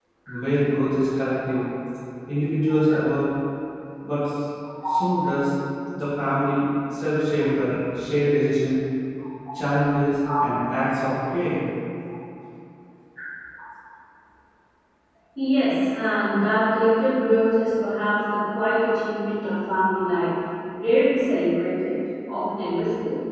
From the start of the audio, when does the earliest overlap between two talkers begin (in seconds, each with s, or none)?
none